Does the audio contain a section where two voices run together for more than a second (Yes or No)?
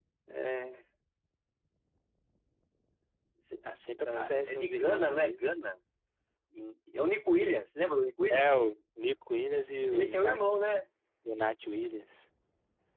Yes